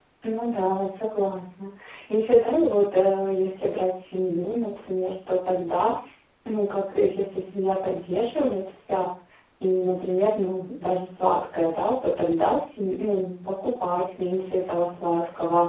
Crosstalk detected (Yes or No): No